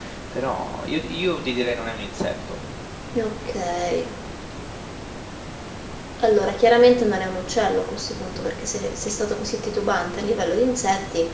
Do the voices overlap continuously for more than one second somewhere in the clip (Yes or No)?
No